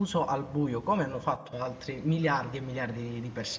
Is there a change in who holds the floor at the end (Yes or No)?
Yes